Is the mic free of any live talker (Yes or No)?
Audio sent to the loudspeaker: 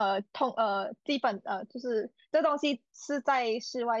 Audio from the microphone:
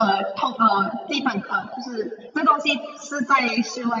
Yes